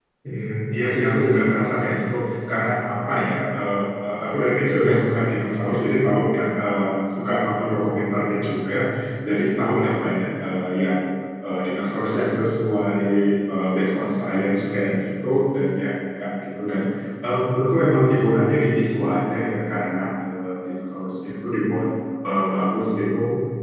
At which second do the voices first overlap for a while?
none

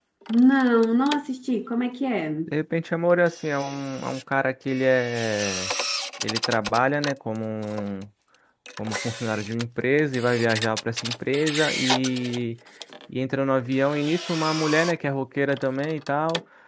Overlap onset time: none

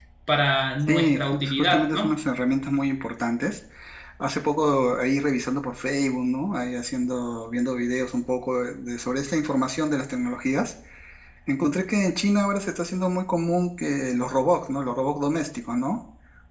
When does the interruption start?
1 s

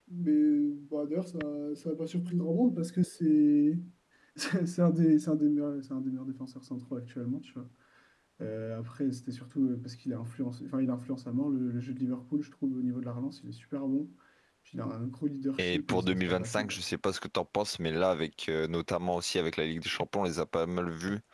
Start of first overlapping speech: 16 s

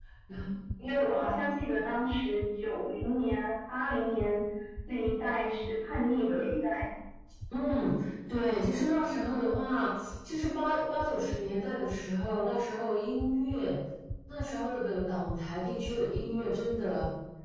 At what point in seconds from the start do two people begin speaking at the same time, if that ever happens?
none

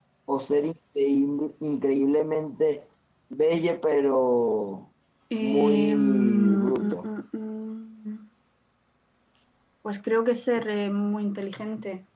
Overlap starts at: 5 s

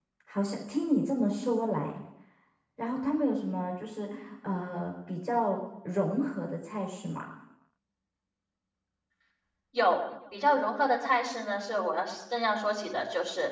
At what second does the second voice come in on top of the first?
none

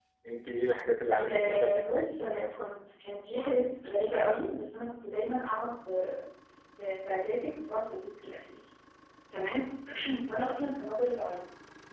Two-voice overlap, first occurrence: 1 s

